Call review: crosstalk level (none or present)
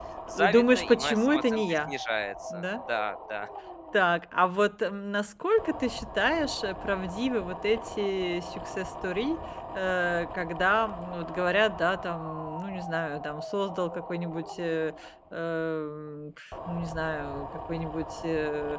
present